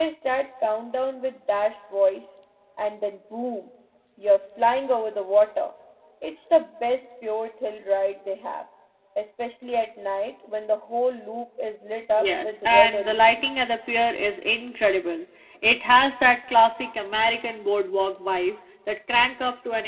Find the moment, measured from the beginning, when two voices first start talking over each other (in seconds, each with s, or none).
12.1 s